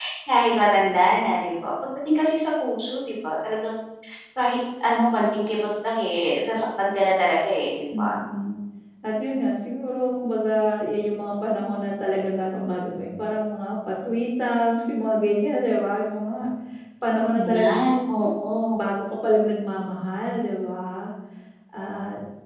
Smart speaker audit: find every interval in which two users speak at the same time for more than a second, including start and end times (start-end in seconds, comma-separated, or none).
none